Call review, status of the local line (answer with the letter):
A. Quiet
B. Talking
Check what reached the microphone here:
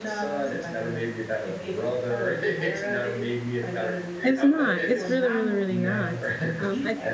B